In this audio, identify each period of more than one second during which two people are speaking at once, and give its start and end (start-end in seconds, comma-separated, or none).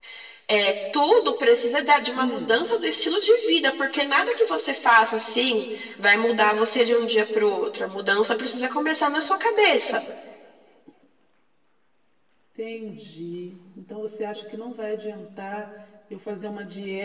none